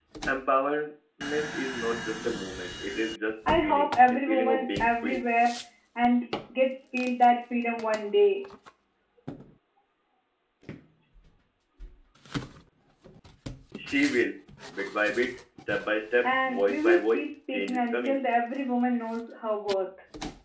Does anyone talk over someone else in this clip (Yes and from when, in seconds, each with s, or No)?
Yes, from 3.5 s